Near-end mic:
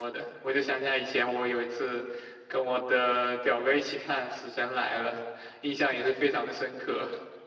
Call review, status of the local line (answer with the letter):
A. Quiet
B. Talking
B